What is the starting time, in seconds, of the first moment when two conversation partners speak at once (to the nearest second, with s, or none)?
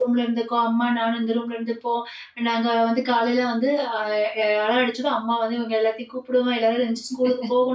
none